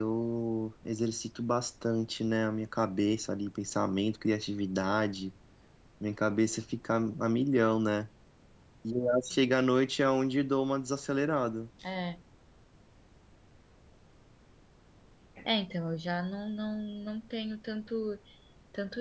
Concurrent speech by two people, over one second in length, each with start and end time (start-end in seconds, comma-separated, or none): none